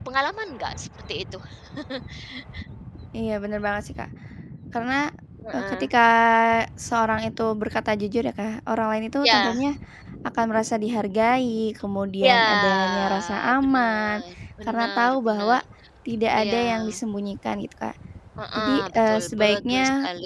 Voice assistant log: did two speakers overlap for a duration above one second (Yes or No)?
Yes